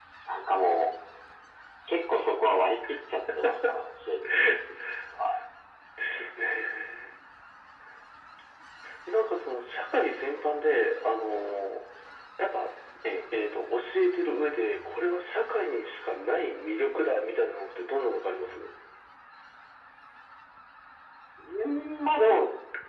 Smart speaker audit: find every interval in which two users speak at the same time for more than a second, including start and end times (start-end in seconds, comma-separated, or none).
none